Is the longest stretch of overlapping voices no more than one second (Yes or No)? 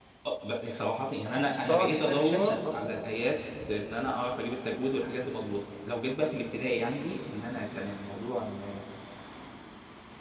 No